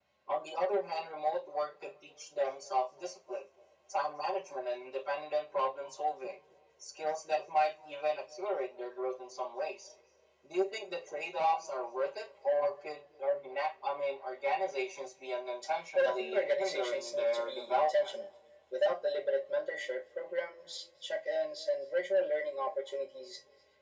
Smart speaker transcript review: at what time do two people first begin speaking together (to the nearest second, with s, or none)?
16 s